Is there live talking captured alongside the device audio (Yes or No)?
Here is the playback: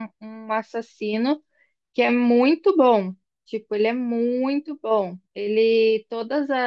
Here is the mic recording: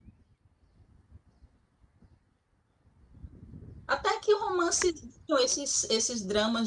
Yes